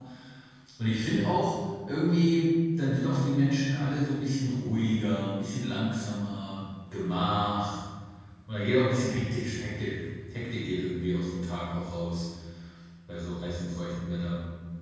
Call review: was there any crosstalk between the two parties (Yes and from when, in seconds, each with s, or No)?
No